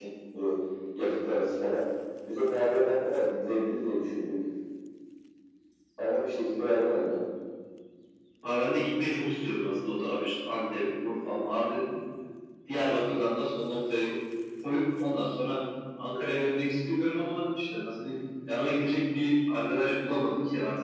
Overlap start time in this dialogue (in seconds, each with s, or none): none